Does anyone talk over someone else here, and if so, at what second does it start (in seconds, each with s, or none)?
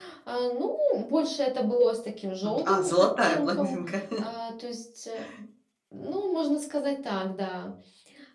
2.4 s